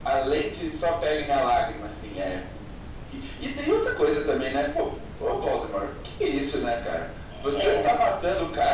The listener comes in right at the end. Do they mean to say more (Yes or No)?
No